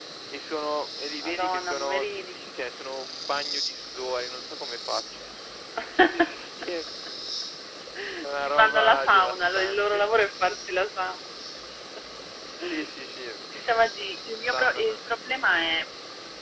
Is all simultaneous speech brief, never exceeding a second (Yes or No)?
No